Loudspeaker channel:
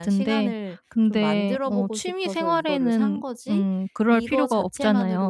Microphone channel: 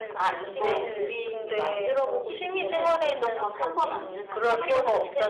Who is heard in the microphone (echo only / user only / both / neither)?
both